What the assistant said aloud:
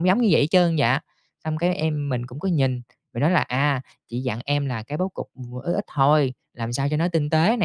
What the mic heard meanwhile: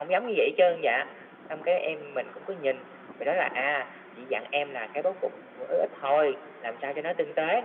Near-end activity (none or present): none